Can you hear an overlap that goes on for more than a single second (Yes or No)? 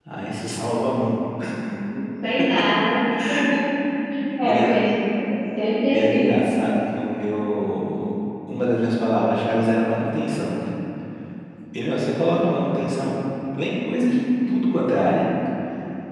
No